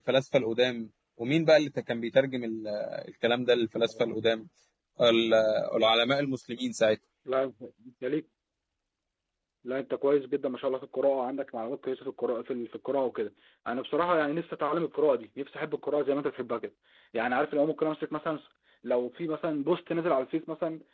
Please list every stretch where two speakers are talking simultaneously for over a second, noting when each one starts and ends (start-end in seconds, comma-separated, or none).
none